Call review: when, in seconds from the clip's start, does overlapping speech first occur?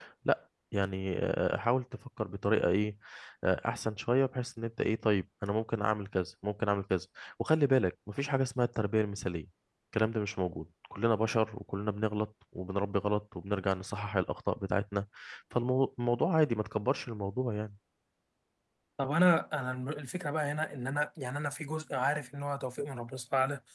none

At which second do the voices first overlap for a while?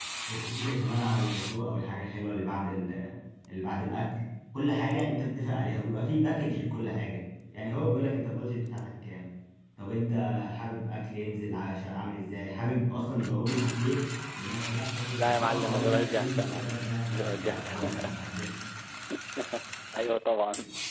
15.2 s

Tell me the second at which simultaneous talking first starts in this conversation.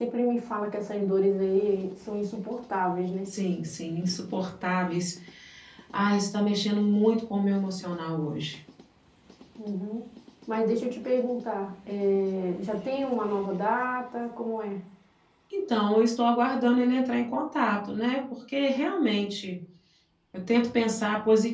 none

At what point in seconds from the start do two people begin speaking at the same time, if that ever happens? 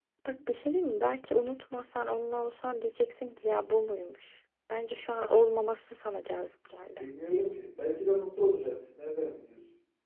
none

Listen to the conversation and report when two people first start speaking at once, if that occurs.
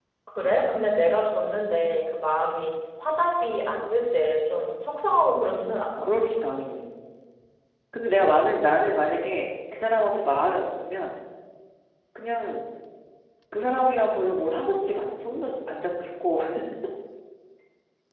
none

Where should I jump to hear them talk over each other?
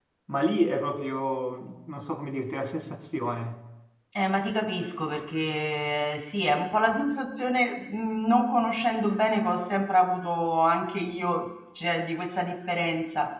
none

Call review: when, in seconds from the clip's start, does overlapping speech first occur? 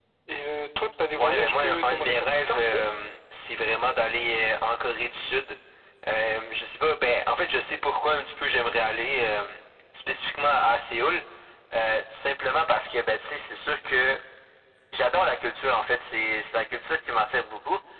1.2 s

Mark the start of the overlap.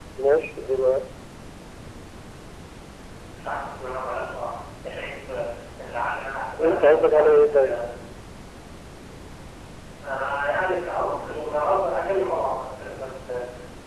6.5 s

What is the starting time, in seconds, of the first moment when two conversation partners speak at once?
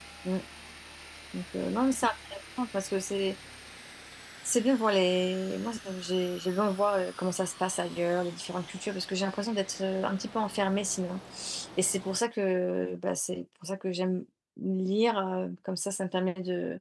none

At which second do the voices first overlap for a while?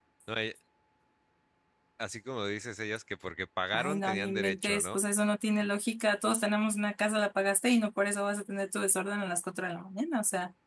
3.7 s

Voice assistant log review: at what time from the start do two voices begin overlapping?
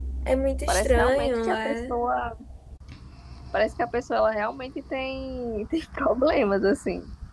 0.7 s

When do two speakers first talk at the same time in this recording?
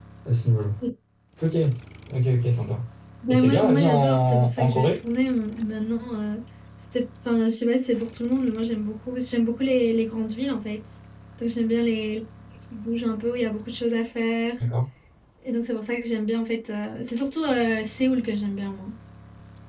3.3 s

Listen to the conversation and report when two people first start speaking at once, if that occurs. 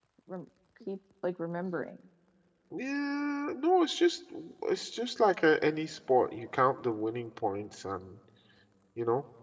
none

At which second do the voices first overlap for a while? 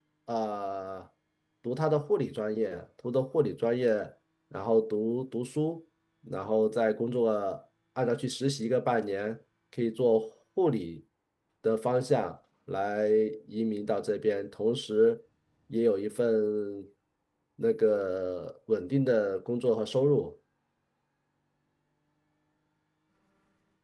none

